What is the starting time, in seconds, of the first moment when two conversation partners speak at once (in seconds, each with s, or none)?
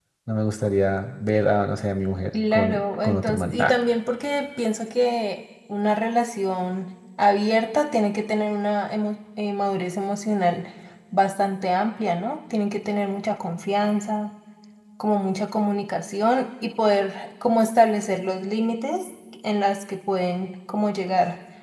2.3 s